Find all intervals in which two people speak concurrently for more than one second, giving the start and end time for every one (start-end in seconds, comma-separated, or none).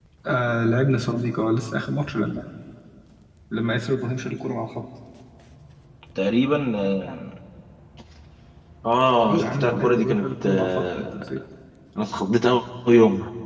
9.3-11.3